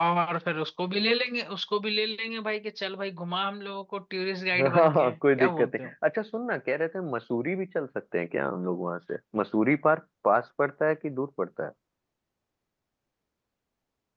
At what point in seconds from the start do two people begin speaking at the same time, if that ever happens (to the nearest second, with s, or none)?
5 s